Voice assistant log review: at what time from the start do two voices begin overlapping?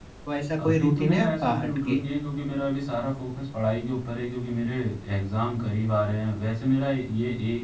1 s

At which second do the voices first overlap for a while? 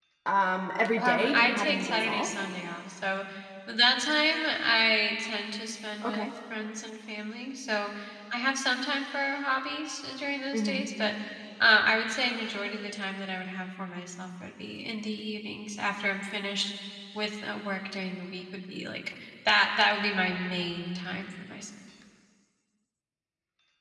1 s

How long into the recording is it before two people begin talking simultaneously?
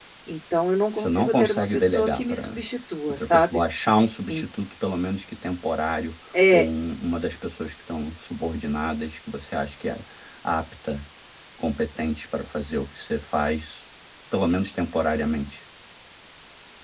1 s

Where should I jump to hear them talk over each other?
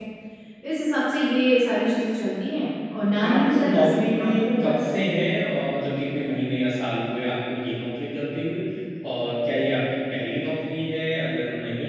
3 s

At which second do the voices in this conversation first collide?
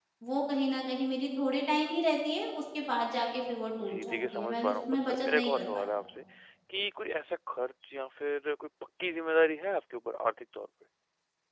4 s

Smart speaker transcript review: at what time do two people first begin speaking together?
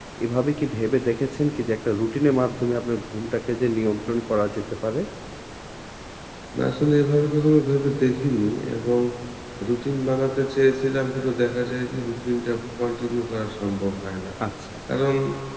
none

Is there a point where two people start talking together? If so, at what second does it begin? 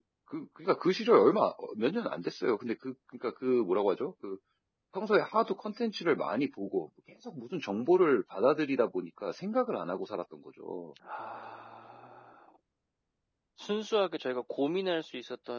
none

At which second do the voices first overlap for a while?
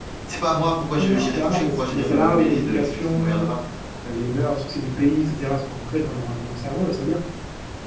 1 s

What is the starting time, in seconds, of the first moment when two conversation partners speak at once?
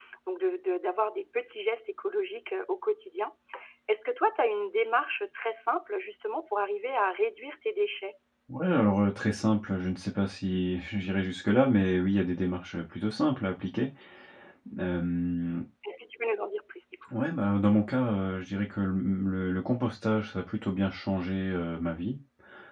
none

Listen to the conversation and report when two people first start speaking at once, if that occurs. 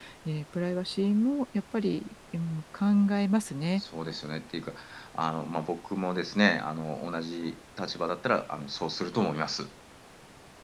none

